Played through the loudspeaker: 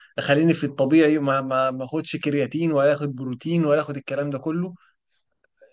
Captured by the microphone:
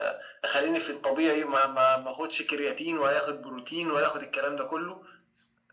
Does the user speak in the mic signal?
No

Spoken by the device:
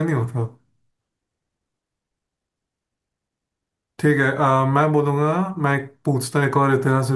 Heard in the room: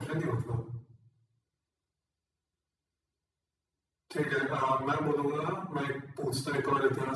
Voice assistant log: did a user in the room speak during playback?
No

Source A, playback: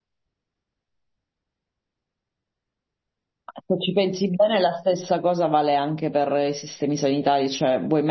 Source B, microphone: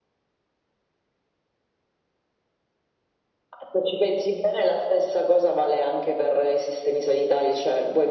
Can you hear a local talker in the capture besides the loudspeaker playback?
No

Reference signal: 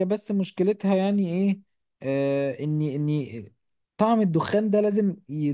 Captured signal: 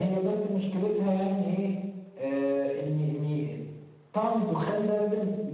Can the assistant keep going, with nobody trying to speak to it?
Yes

